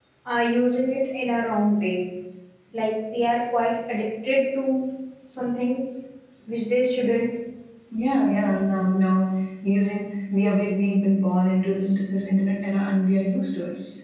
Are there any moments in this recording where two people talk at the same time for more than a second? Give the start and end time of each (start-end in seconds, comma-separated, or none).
none